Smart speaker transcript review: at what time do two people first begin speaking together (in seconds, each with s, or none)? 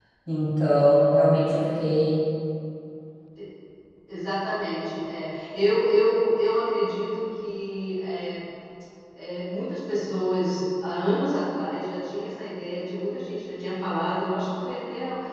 none